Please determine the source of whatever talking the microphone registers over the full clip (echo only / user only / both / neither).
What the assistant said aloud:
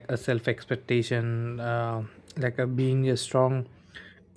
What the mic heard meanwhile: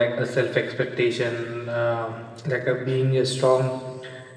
echo only